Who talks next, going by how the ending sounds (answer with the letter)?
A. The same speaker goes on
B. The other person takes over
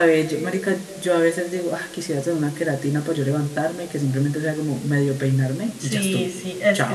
B